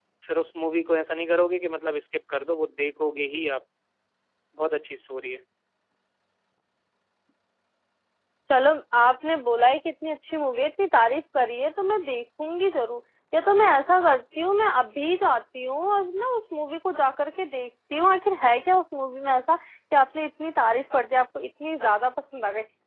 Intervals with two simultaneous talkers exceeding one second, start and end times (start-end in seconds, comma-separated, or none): none